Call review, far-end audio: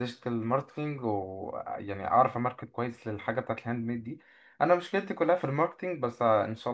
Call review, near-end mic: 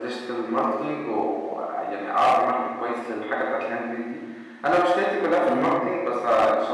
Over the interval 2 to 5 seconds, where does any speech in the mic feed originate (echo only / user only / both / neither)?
echo only